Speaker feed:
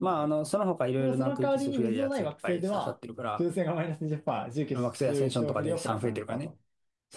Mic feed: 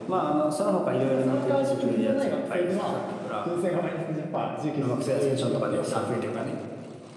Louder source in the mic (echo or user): echo